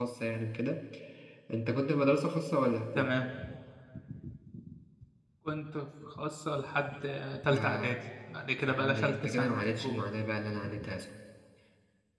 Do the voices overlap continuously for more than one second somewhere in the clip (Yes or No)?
Yes